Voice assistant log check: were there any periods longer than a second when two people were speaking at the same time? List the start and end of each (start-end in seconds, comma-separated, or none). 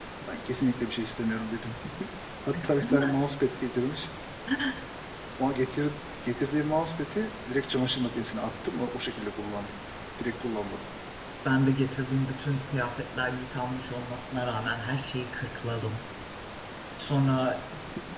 none